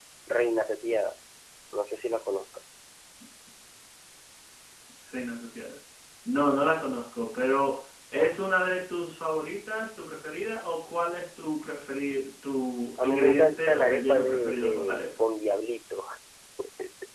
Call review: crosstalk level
present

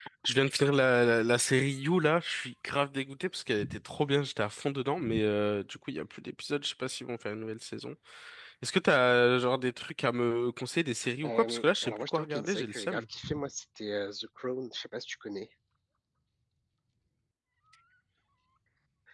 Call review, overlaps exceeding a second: present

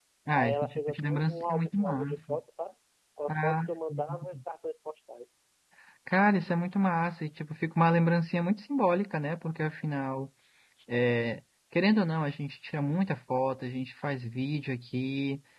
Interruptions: present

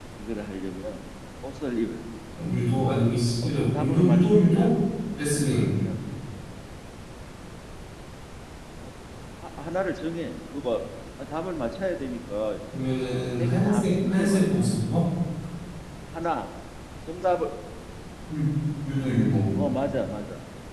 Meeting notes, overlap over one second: present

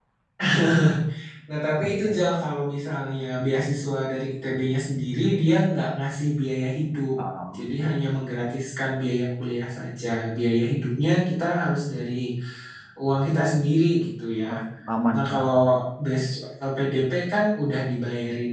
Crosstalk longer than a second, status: none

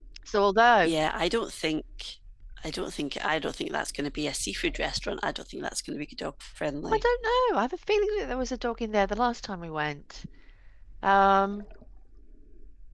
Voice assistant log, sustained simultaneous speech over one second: none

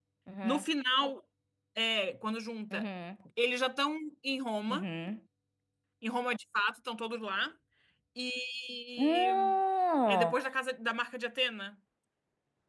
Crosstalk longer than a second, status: none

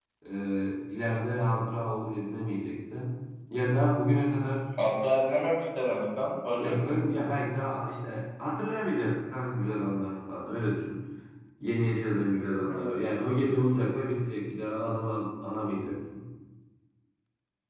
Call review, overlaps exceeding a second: none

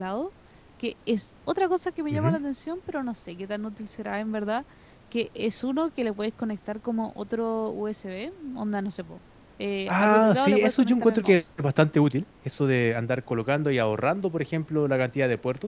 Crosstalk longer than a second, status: present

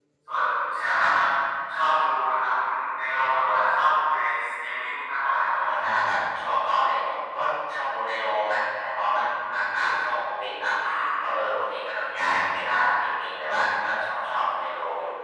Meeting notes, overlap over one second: none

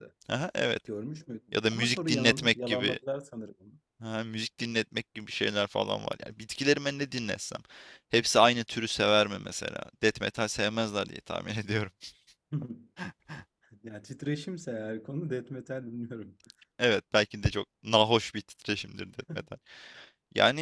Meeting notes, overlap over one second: present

